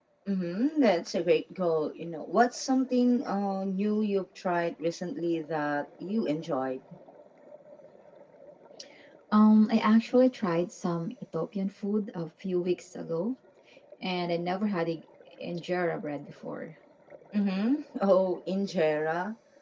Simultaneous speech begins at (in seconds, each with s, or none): none